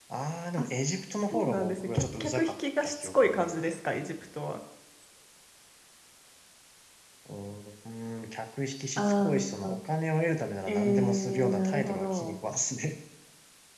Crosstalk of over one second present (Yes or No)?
Yes